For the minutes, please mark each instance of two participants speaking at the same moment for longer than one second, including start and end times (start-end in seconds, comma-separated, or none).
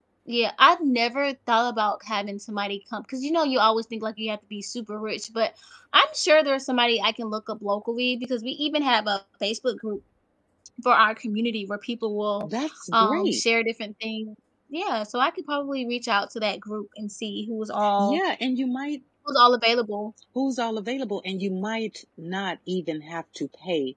none